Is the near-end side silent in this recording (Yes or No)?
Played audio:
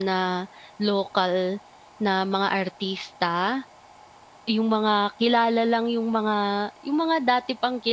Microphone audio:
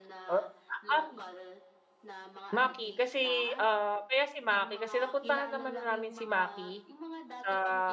No